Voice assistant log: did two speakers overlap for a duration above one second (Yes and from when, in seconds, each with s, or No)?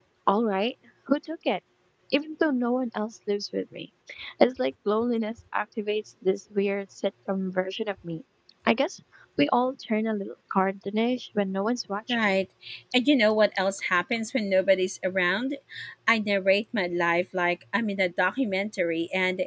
No